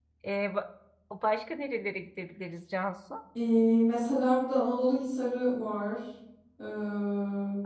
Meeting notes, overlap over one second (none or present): none